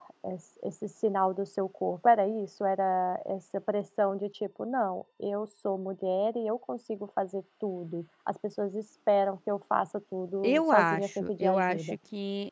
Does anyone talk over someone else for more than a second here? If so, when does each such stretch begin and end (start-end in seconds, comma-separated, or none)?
10.4-12.0